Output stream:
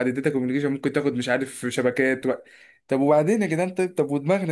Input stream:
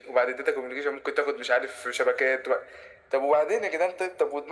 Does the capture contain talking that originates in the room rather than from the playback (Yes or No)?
No